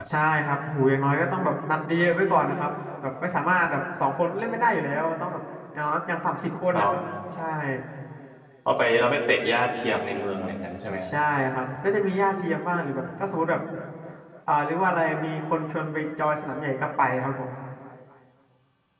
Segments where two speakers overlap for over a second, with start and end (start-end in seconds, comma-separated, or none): none